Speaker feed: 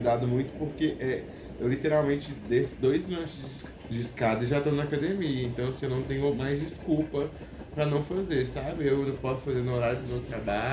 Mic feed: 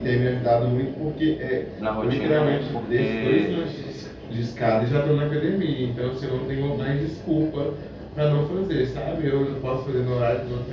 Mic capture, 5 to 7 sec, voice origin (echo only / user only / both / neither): echo only